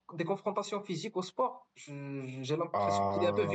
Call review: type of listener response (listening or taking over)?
taking over